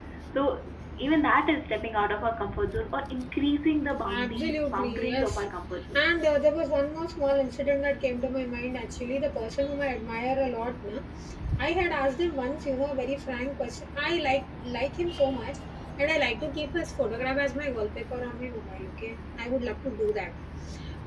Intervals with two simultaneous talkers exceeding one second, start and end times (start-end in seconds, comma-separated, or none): 4.2-5.4